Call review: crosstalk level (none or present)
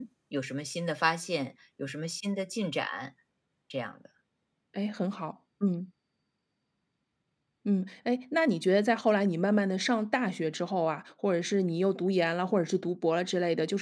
none